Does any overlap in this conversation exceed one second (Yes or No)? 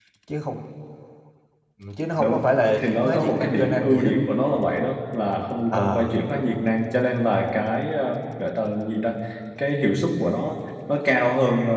Yes